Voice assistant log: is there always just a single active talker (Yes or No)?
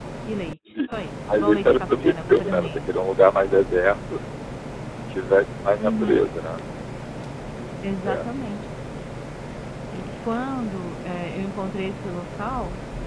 No